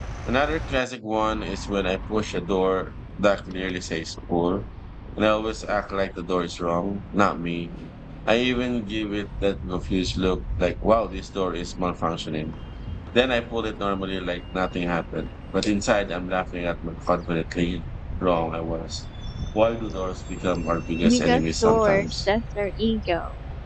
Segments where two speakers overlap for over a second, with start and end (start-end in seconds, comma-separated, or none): 21.1-22.3